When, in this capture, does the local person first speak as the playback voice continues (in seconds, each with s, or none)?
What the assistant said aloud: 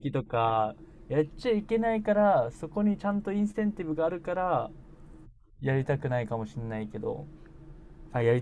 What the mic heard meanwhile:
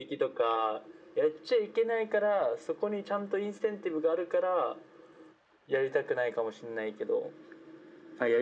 none